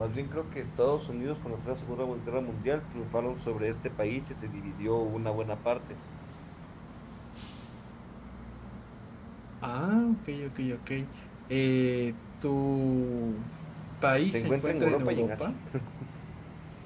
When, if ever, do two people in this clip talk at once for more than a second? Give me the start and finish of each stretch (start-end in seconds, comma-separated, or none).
14.2-15.4